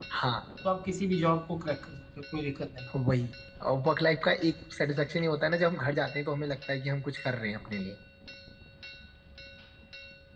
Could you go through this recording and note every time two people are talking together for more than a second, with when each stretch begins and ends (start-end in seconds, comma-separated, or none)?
none